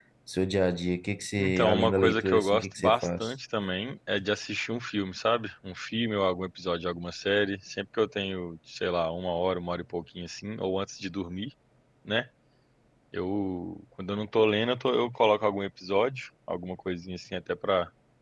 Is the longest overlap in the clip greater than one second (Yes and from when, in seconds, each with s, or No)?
Yes, from 1.4 s